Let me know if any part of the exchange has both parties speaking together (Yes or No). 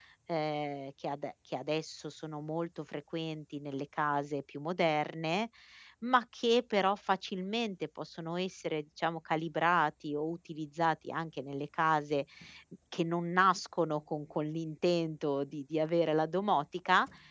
No